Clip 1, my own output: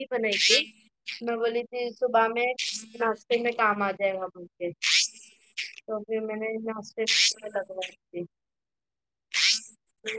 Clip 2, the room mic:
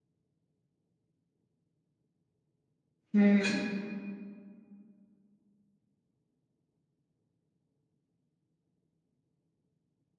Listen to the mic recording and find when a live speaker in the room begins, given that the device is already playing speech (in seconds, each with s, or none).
3.1 s